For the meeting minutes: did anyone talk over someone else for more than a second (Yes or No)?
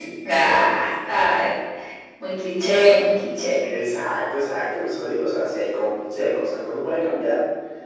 No